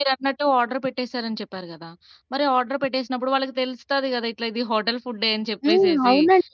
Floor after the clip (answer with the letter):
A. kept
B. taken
B